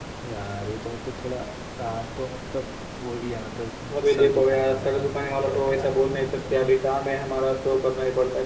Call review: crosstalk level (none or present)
present